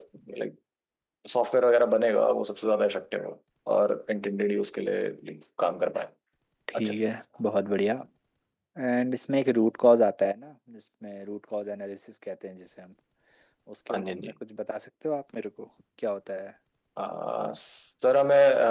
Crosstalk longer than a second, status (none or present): none